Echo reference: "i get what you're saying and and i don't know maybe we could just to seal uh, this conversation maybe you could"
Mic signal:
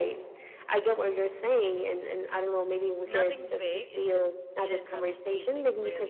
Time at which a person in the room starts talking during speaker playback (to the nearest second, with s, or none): 3 s